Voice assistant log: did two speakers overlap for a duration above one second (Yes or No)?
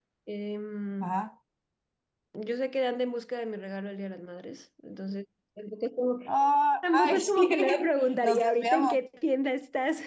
Yes